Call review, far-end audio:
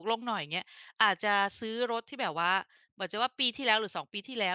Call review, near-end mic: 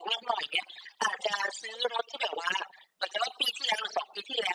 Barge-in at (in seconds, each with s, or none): none